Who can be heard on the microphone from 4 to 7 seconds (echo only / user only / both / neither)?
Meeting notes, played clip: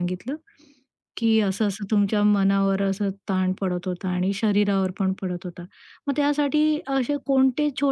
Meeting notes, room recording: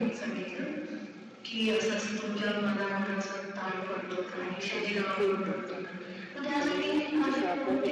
both